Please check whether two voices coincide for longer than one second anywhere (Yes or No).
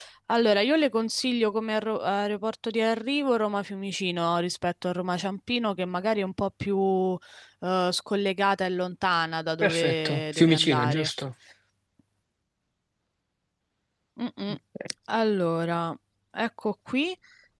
Yes